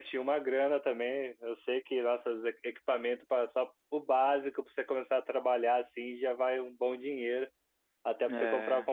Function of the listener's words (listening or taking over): listening